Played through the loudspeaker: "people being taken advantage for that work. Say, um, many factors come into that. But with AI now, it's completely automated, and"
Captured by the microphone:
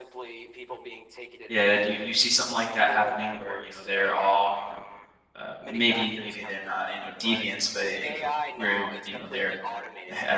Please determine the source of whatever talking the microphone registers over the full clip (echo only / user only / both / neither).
both